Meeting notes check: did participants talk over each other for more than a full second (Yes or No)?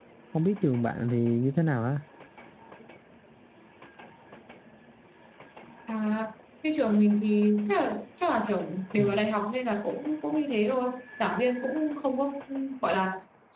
No